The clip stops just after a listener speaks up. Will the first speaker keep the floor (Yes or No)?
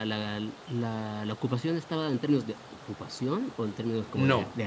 No